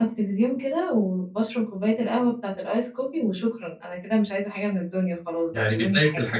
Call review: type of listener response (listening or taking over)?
taking over